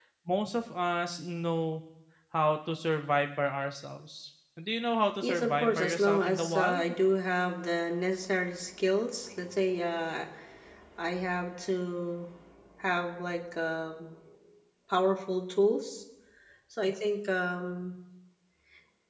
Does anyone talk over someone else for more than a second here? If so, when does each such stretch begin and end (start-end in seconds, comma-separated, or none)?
5.2-6.8